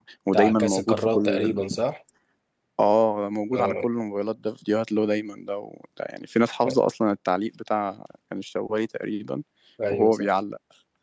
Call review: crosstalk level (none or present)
present